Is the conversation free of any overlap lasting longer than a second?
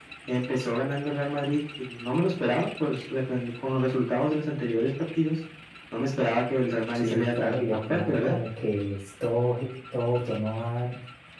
No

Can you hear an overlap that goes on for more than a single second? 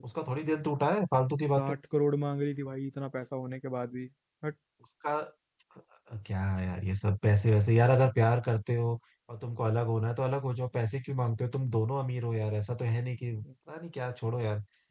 No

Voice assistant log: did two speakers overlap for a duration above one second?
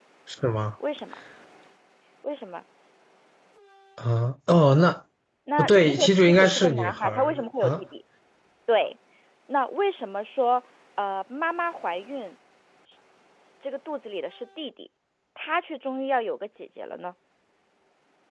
Yes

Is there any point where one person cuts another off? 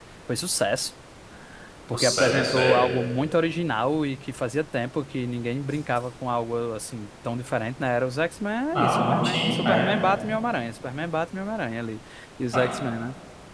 Yes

